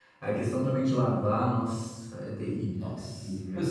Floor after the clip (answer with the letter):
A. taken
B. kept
A